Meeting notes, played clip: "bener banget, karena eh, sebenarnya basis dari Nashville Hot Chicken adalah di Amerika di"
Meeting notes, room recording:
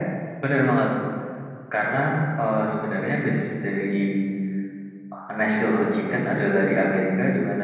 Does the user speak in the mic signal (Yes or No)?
No